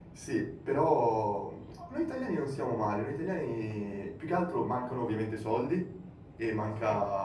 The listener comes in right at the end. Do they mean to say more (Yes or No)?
No